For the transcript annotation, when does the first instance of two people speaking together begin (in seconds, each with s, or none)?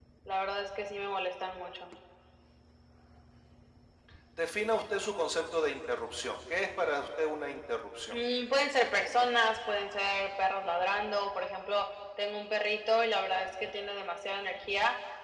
none